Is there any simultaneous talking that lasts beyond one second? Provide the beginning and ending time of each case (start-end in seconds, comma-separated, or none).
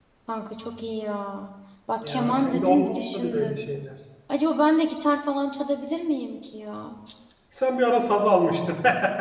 2.1-3.6